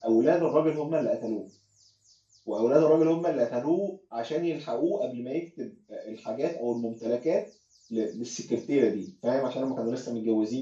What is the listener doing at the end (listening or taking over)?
listening